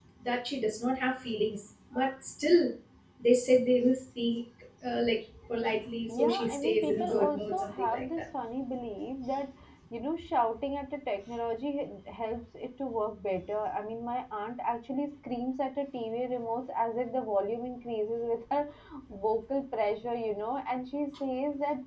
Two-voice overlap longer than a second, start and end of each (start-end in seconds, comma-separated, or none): 6.1-8.2